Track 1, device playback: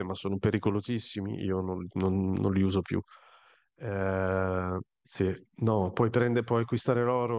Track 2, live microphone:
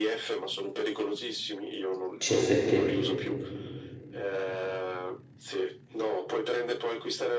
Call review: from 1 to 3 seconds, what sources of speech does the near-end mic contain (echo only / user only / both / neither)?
both